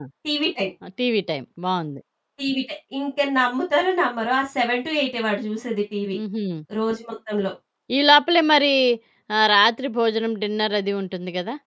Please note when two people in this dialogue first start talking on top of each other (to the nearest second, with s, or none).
none